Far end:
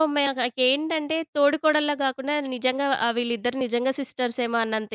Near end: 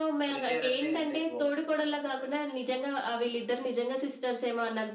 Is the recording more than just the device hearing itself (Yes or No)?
Yes